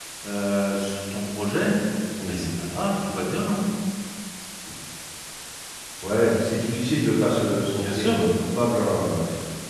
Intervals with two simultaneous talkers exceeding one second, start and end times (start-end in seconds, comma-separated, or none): none